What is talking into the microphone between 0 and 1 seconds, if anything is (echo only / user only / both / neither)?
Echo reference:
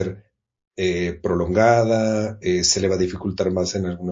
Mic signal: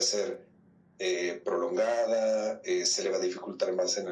echo only